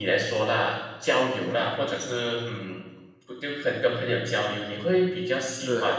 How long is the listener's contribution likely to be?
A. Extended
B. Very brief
B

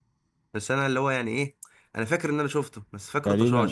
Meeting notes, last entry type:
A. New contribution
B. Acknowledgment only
A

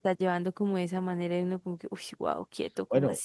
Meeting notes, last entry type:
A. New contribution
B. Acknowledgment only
A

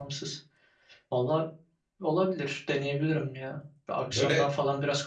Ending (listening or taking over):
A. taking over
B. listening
B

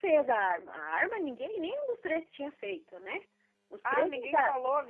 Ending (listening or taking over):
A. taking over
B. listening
A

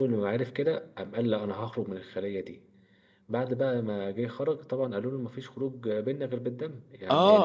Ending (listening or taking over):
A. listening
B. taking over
B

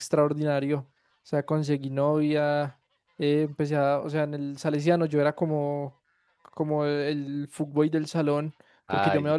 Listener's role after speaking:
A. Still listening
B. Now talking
A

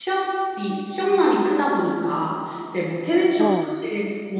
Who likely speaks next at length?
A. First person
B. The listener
A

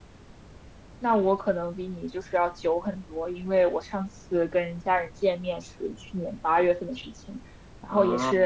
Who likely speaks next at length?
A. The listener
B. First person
B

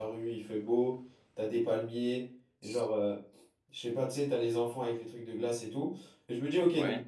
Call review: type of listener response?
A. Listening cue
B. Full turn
A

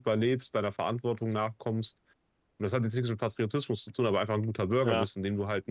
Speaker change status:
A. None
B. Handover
A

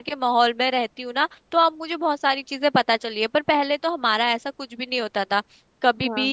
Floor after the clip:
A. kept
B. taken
A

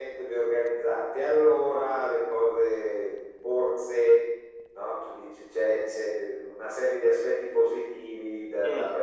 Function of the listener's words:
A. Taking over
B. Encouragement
B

